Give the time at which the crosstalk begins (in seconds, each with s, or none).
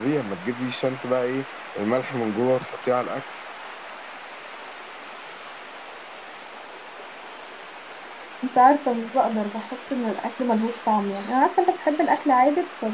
none